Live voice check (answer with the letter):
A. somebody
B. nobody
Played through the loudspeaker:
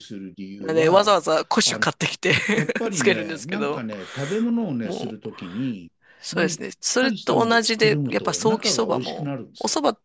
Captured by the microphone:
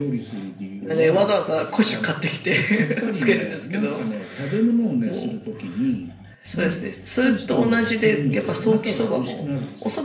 B